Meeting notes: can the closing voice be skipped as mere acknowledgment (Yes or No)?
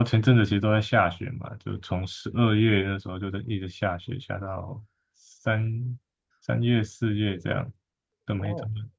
No